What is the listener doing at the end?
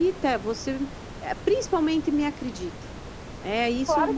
taking over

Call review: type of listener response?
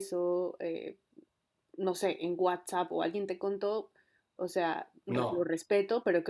listening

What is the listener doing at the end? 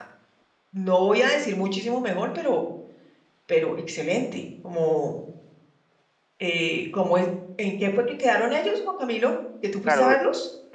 taking over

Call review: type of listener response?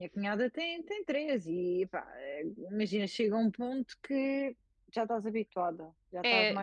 taking over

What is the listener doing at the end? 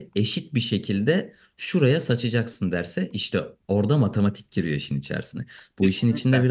listening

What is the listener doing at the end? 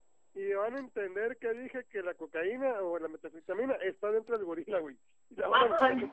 taking over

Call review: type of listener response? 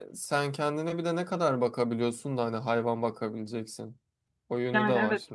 taking over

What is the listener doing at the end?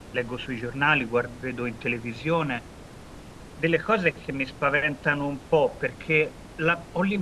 listening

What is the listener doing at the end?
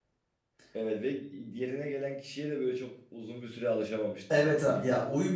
taking over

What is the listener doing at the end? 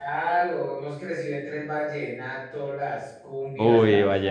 taking over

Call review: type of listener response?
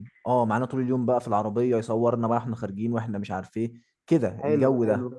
taking over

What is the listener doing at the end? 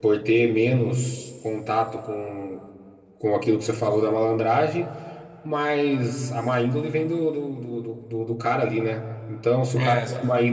listening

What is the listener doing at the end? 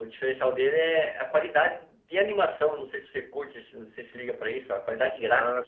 taking over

